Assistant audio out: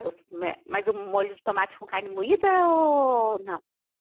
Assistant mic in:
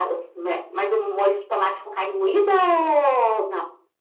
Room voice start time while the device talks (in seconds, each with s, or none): none